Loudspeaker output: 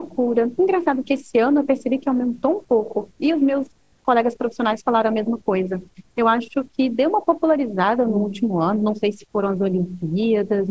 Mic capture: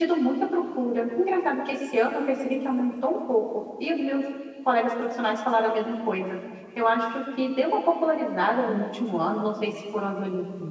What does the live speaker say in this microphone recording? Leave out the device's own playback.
none

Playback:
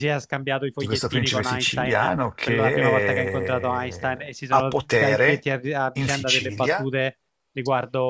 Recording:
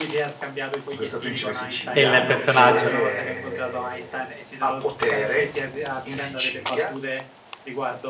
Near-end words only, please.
Il, il personaggio.

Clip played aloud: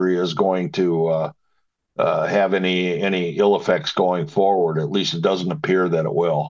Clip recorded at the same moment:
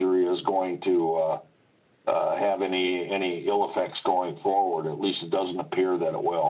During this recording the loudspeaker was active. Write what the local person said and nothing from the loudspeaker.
none

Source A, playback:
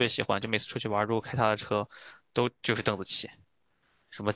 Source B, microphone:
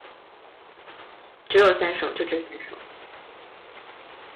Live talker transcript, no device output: 只有三首，就这三首。

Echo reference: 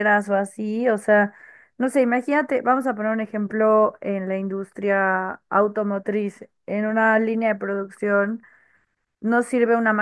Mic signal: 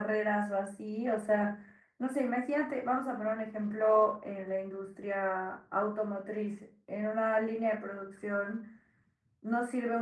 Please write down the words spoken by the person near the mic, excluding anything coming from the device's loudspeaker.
none

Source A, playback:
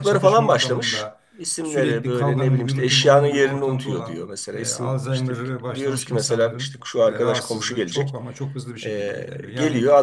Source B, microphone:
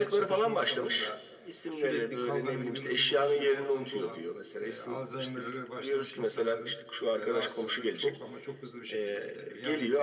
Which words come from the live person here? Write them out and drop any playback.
none

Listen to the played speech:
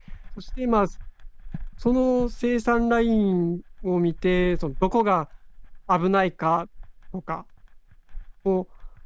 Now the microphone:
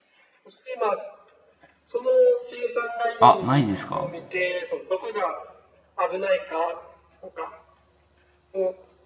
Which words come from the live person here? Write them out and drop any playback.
あ、ないですか

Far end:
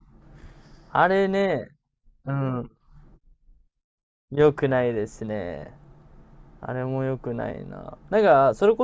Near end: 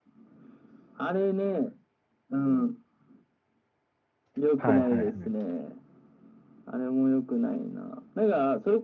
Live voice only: はいはいはい。

